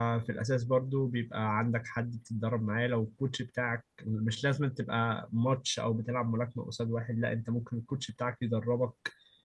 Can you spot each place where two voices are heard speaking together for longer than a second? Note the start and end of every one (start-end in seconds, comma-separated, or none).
none